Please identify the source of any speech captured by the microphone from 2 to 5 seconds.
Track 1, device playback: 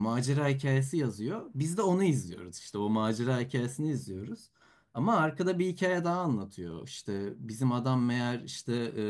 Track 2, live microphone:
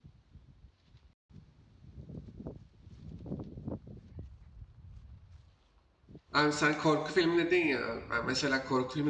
neither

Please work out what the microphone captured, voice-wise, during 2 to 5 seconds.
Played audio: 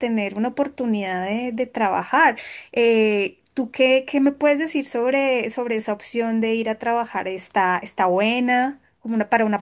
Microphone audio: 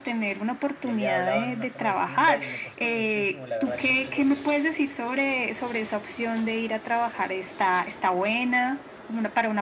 both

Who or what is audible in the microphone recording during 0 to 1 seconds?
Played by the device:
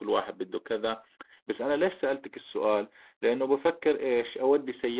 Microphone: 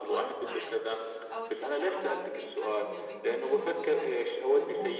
both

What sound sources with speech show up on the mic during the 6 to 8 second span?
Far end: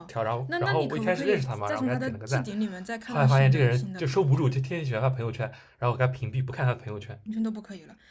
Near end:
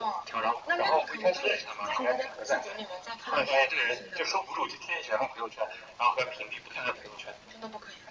echo only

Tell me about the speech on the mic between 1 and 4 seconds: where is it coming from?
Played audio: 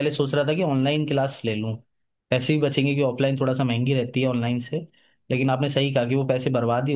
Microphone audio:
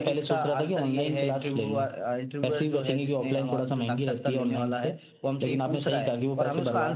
both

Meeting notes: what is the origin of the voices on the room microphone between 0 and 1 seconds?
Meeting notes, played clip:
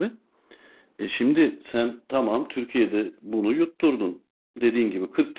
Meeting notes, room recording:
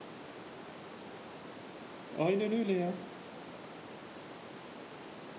neither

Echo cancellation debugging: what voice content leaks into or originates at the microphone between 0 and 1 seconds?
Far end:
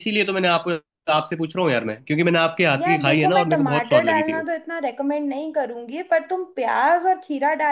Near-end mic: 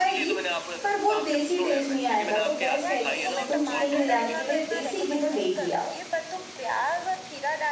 both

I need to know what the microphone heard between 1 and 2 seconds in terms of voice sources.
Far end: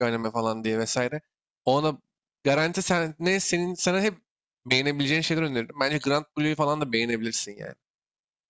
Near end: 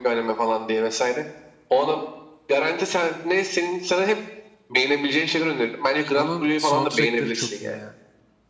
echo only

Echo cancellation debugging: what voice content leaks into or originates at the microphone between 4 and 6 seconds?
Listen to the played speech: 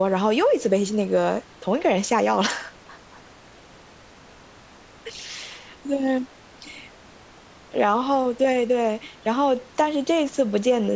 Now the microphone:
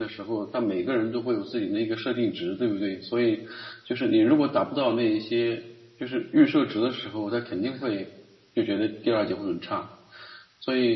user only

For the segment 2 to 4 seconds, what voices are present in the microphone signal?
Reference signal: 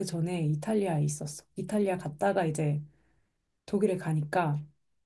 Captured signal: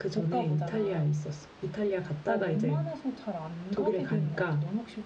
both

